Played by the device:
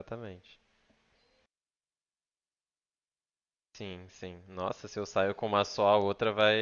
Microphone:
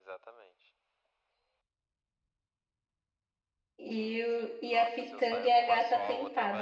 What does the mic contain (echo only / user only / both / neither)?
both